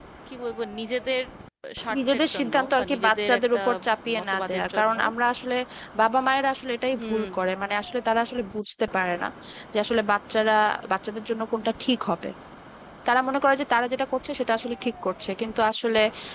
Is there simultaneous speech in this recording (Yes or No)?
Yes